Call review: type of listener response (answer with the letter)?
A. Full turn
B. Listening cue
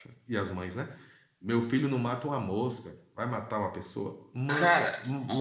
A